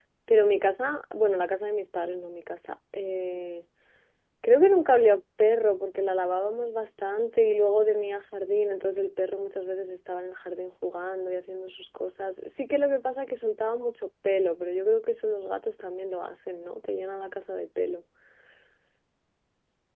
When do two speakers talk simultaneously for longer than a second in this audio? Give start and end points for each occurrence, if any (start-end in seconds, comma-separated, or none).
none